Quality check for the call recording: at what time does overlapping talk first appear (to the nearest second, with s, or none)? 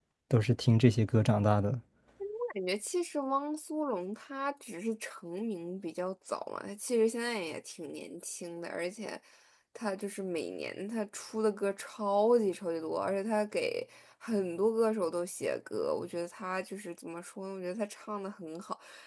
none